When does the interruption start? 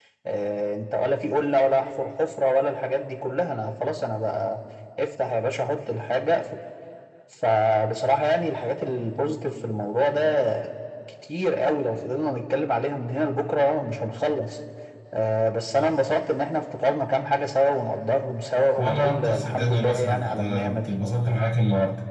18.8 s

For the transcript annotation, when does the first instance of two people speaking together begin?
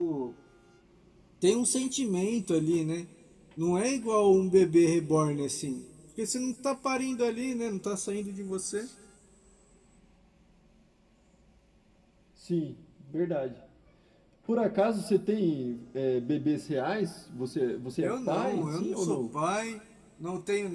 18.0 s

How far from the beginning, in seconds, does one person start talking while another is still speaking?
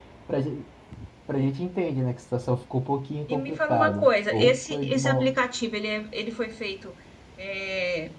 3.3 s

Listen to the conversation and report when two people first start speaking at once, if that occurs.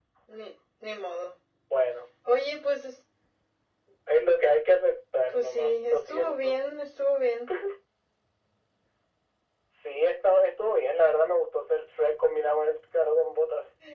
5.3 s

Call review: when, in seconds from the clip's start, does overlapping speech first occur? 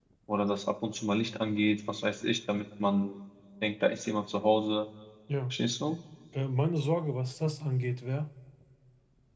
none

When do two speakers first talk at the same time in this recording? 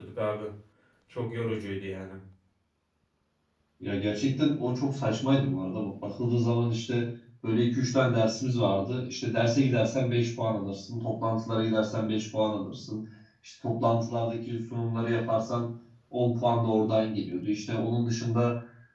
none

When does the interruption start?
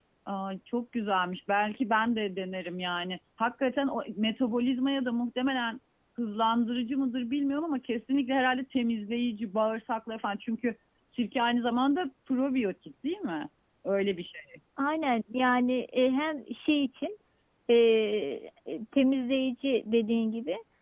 none

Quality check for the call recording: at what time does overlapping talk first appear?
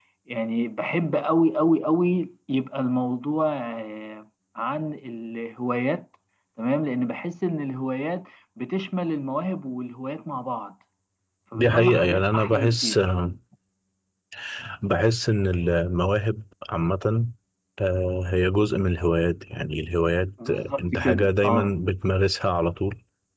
11.5 s

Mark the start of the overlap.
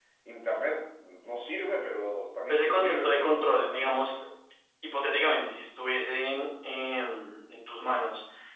2.5 s

